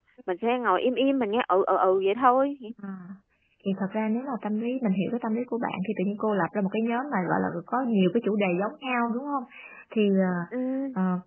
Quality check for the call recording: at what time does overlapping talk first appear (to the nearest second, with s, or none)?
none